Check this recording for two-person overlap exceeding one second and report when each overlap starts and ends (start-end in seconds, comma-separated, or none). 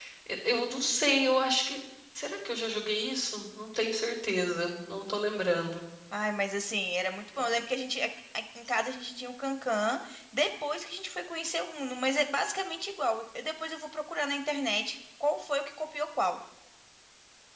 none